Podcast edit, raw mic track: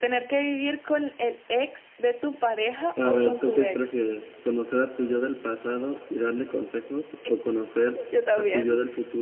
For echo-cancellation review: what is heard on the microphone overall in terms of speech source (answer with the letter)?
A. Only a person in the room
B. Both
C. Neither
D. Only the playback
B